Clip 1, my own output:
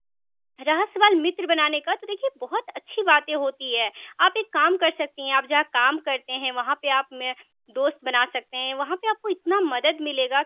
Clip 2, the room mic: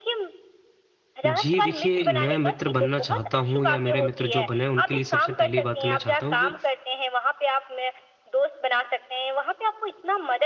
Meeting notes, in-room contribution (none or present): present